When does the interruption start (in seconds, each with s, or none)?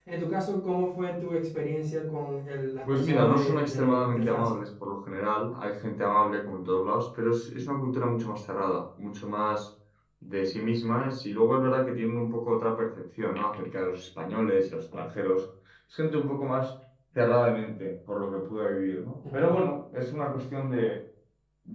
2.9 s